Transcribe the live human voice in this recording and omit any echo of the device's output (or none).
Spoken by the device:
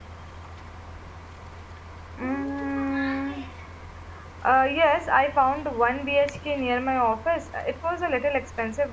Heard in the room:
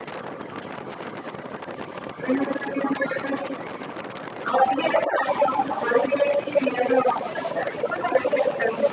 none